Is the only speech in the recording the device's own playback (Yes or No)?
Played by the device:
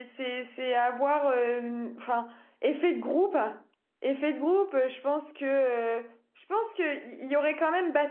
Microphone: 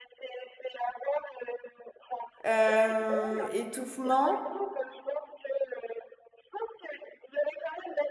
No